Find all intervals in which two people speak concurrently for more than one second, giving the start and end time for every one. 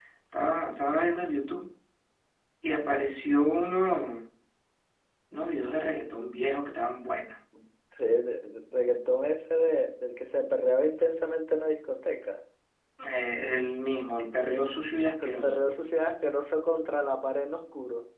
none

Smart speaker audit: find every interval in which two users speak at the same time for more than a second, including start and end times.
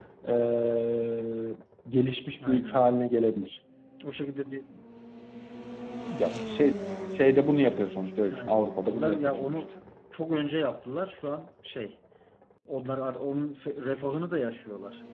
8.3-9.6

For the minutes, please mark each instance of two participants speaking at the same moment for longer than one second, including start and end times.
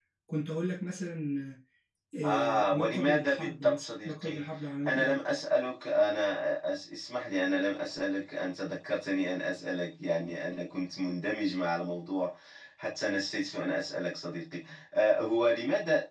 2.2-4.4

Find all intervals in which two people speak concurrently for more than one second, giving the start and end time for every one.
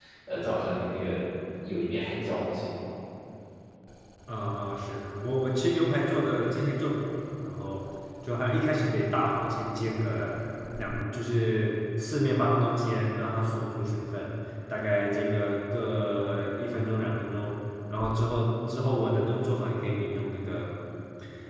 none

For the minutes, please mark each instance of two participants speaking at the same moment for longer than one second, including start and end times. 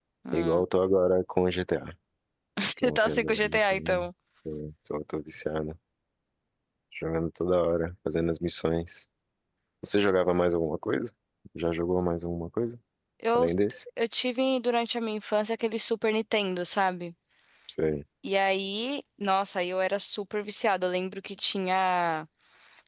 2.8-4.1

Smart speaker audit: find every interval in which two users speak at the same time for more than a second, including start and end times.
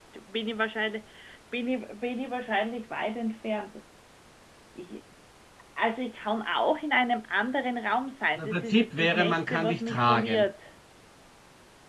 8.4-10.5

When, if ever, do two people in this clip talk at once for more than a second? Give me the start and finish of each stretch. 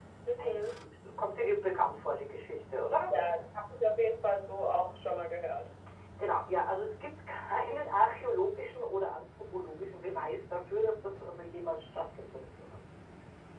none

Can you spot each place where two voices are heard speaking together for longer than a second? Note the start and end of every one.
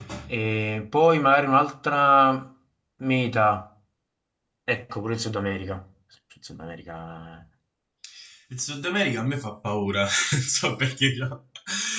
none

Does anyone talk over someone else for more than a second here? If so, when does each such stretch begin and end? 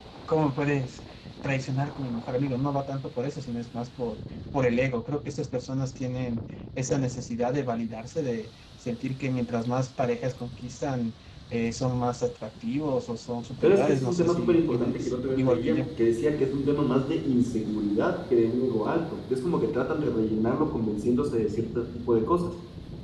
13.6-15.9

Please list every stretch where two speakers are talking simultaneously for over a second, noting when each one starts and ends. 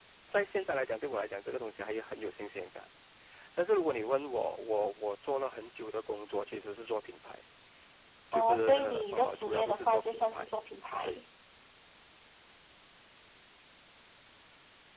8.3-10.5

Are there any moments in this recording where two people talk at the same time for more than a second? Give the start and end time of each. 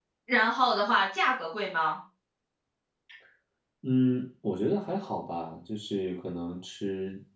none

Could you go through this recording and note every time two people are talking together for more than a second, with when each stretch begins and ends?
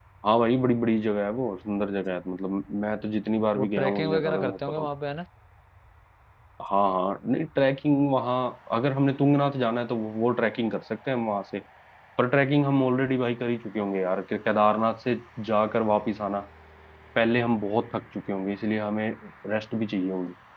3.5-4.9

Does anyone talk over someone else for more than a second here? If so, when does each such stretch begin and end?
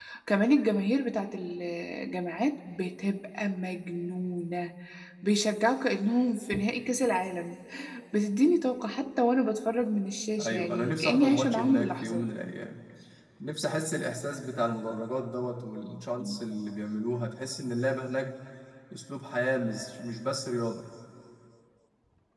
10.4-12.2

